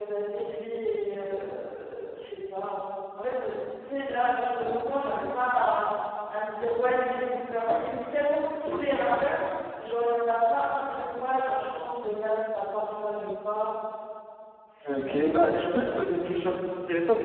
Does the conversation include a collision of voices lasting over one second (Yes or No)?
Yes